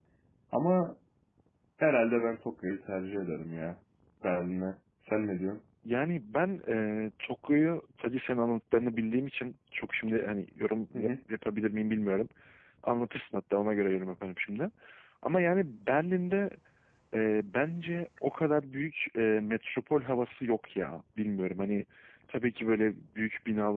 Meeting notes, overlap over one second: none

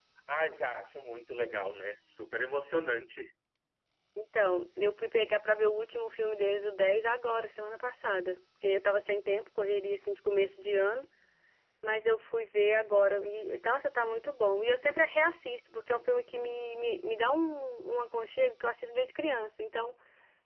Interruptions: none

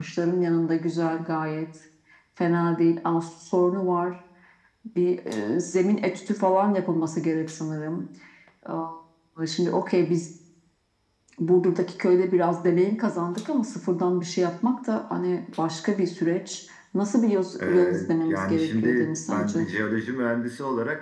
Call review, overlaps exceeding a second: present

